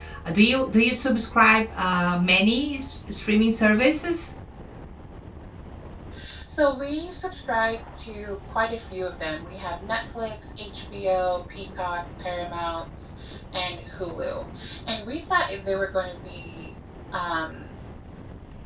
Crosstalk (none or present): none